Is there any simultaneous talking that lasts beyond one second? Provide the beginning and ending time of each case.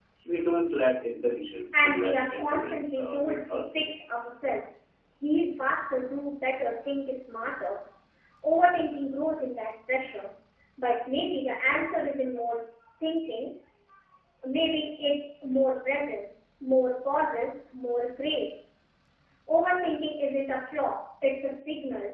1.7-4.1

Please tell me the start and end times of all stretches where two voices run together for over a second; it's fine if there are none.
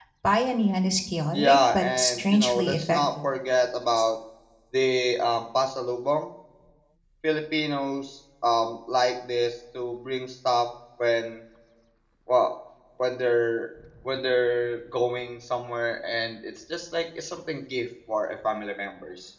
1.3-3.0

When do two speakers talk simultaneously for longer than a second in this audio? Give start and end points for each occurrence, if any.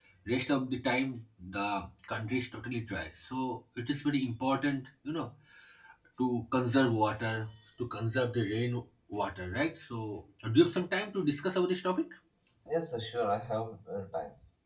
none

